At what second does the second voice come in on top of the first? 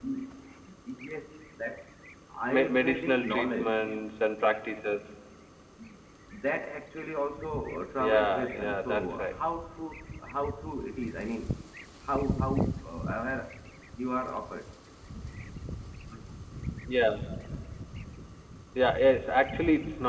2.5 s

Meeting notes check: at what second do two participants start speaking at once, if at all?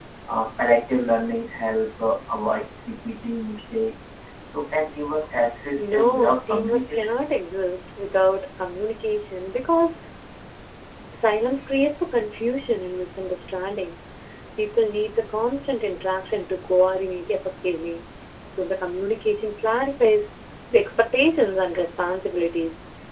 5.8 s

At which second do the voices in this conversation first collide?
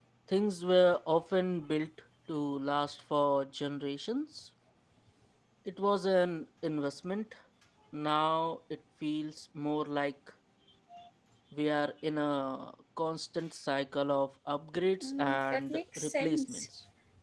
15.0 s

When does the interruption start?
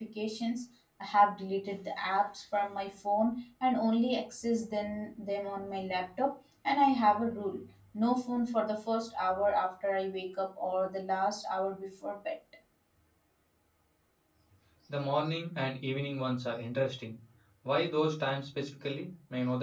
none

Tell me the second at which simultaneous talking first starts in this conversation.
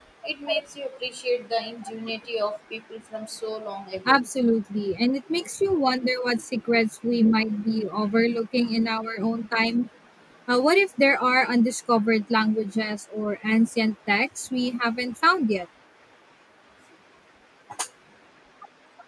none

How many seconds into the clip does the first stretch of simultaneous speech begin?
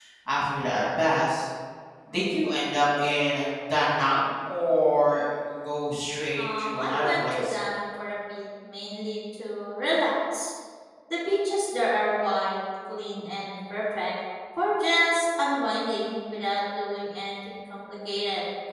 6.4 s

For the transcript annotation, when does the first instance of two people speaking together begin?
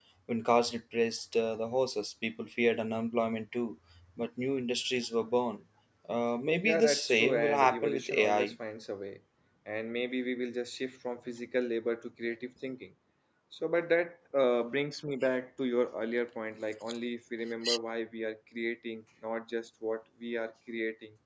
6.6 s

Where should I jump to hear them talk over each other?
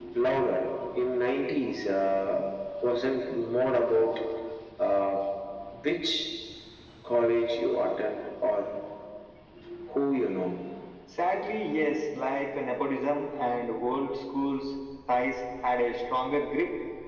none

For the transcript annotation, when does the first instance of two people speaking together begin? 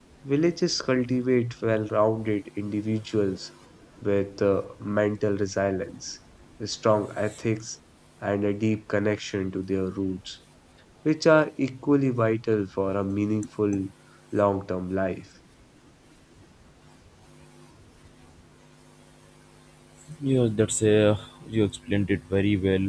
none

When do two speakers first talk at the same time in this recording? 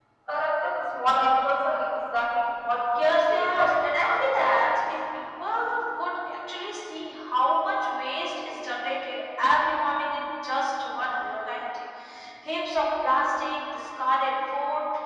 3.0 s

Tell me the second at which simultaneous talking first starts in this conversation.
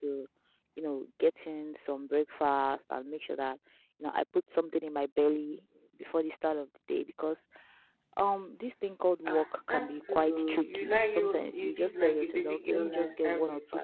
9.3 s

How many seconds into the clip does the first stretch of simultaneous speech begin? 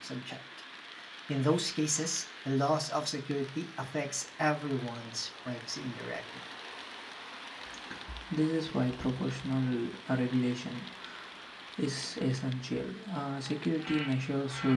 none

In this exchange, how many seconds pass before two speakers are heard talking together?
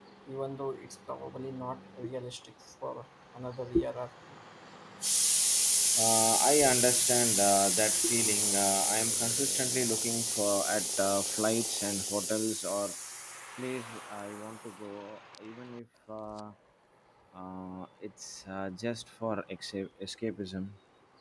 none

